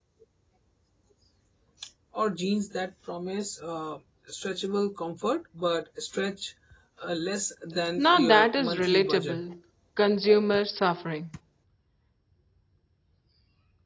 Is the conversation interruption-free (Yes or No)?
No